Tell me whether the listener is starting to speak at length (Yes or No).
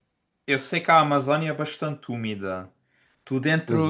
No